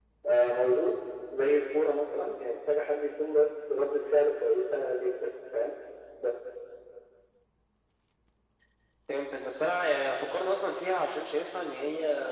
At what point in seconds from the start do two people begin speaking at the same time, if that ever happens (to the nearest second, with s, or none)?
none